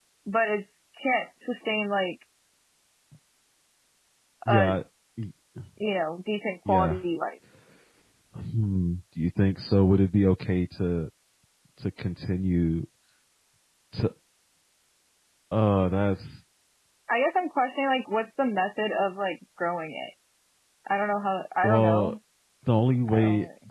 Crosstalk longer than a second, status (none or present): none